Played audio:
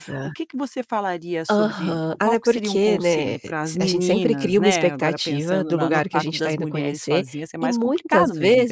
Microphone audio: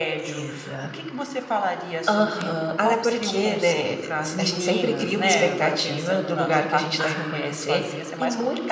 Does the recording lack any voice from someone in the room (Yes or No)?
No